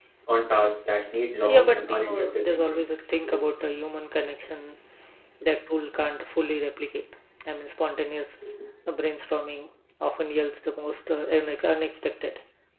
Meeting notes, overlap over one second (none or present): present